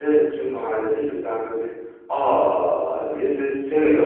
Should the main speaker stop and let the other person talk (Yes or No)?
Yes